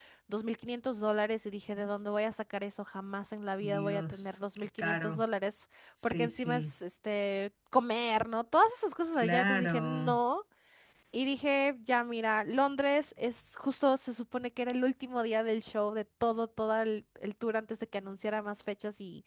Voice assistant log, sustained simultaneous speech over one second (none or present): present